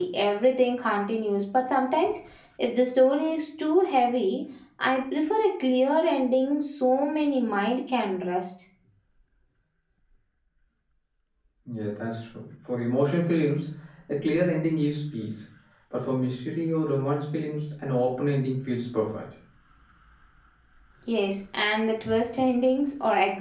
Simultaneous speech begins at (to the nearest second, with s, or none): none